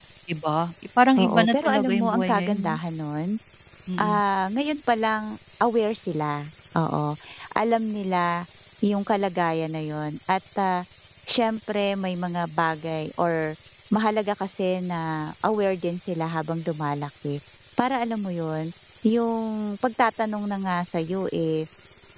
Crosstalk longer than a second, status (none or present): present